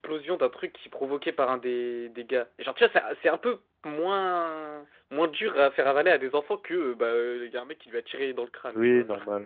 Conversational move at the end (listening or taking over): taking over